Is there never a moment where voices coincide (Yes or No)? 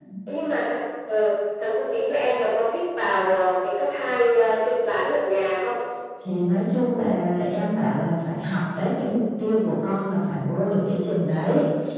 Yes